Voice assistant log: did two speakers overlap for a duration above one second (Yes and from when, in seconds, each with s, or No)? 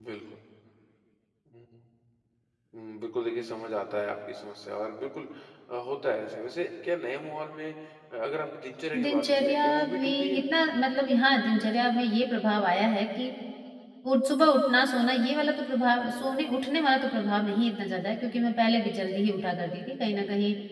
Yes, from 8.9 s